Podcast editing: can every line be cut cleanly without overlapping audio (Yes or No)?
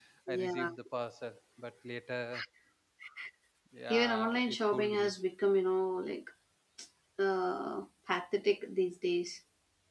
No